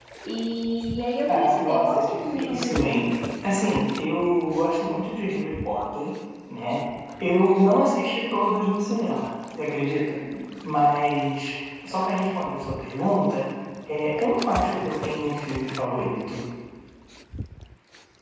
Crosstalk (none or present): present